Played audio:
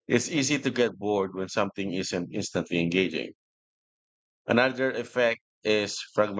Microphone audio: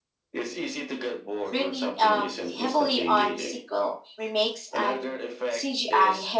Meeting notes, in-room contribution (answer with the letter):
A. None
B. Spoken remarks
B